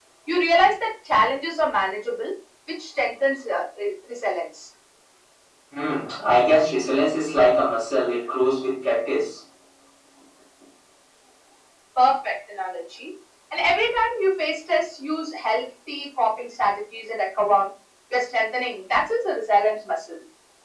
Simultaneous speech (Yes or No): No